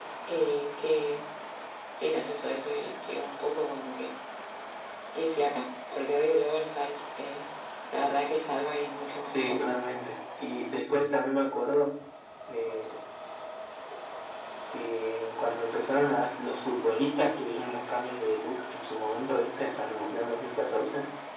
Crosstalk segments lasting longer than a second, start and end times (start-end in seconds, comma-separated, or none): none